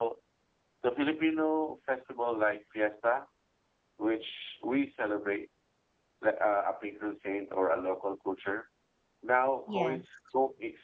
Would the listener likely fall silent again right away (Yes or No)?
Yes